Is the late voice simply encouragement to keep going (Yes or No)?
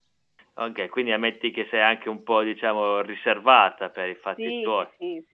No